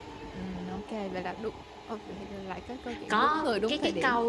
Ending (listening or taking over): taking over